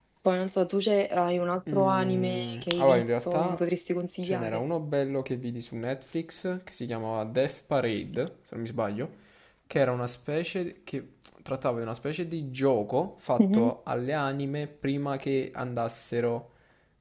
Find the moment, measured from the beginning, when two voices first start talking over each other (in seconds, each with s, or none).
1.7 s